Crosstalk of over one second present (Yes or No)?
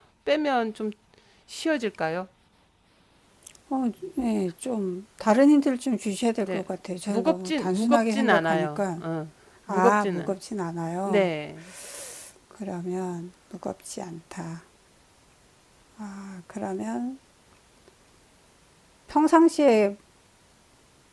Yes